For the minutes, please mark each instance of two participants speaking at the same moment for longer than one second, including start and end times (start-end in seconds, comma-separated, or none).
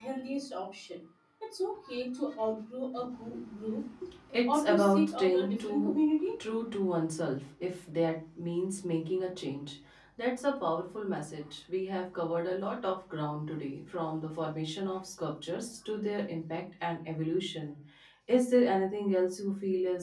4.5-6.0